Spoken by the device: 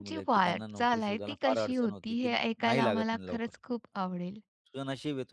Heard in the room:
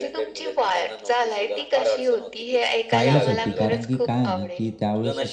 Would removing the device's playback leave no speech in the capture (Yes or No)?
No